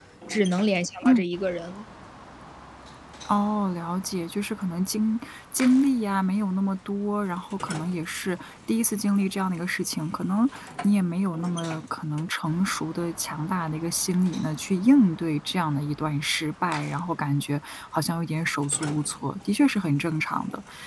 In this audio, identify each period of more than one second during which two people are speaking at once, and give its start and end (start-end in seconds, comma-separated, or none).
none